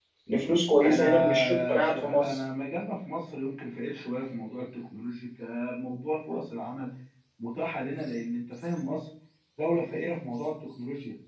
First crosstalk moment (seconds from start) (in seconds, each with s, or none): 0.8 s